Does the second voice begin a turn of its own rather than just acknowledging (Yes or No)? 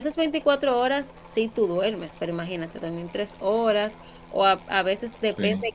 No